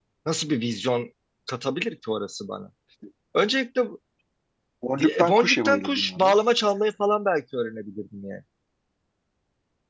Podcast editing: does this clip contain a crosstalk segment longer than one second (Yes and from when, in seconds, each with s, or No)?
Yes, from 5.0 s